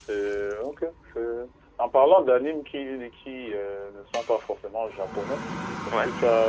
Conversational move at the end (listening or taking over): listening